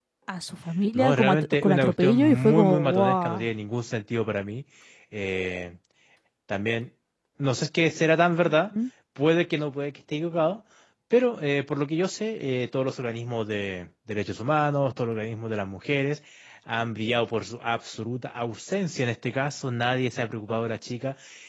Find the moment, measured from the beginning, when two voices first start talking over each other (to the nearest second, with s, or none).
1 s